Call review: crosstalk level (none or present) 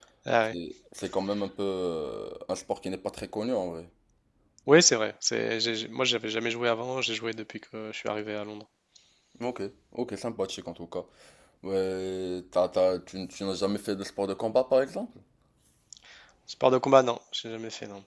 none